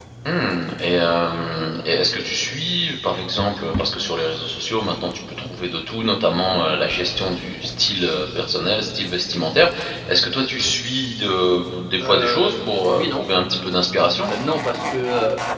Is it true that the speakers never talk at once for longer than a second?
No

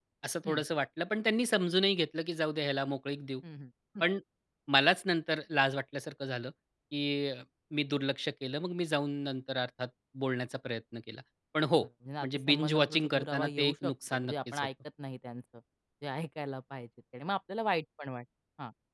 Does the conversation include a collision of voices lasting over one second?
Yes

